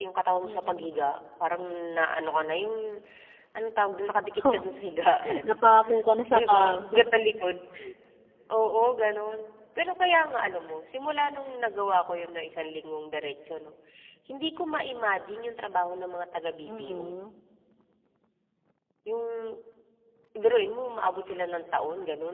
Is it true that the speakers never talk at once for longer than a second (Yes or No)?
Yes